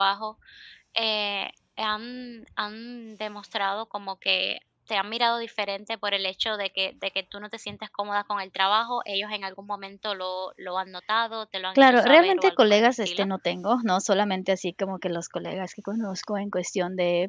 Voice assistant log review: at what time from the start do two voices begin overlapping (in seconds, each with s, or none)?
11.8 s